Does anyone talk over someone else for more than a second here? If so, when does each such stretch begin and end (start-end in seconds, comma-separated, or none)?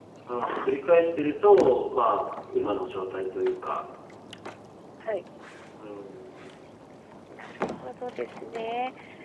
none